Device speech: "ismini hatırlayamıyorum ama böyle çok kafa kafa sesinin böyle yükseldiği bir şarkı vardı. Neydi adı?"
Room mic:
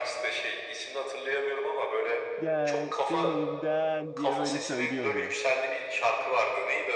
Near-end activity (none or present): present